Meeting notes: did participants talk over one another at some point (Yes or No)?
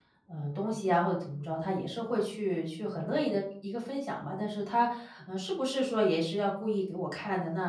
No